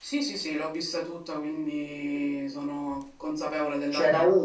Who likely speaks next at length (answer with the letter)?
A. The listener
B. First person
A